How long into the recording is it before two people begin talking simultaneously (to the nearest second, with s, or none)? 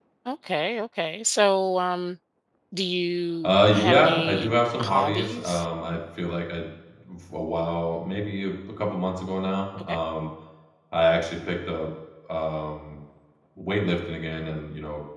3 s